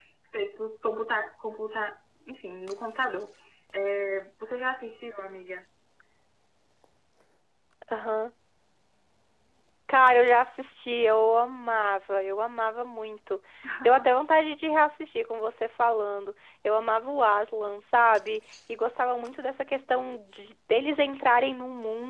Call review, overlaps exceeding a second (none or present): none